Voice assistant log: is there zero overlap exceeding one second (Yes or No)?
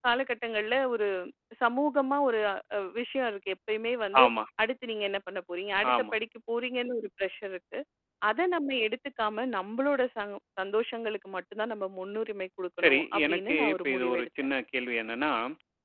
No